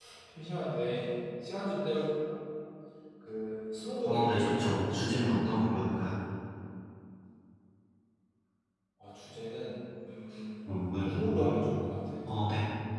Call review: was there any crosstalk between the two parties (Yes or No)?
Yes